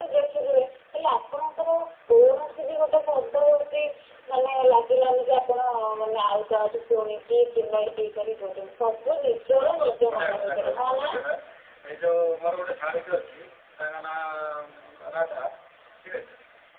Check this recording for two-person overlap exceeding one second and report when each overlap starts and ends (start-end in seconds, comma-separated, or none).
9.5-11.1